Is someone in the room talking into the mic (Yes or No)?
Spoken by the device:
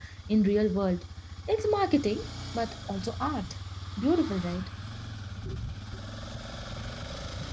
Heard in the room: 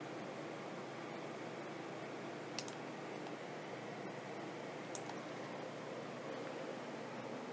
No